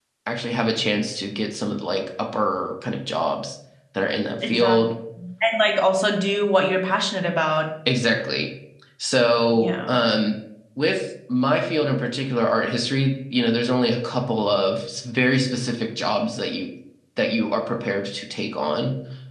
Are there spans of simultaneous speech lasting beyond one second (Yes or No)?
No